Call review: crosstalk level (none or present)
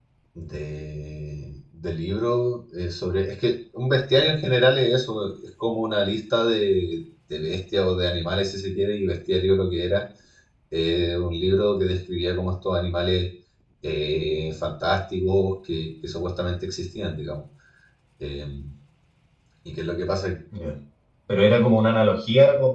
none